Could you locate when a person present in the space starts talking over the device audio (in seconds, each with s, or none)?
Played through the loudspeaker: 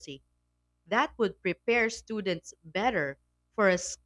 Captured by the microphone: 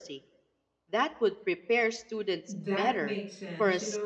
2.5 s